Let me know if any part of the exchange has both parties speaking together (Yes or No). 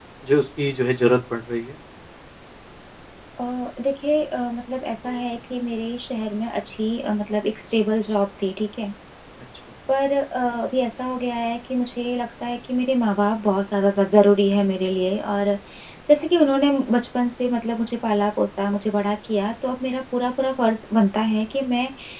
No